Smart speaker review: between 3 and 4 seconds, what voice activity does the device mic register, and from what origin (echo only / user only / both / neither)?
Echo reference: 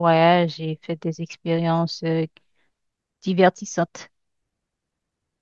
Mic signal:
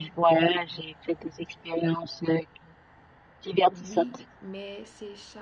both